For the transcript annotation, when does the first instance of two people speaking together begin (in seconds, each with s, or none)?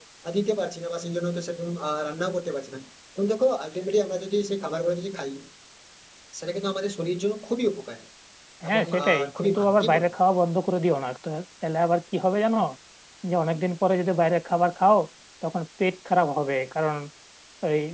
8.7 s